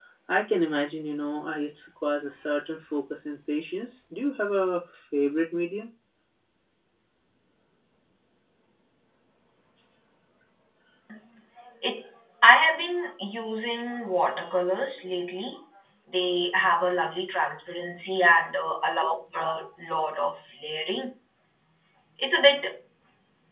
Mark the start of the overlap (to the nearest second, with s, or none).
none